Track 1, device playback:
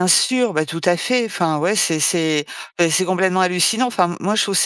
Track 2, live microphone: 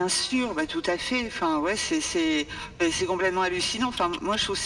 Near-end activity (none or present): none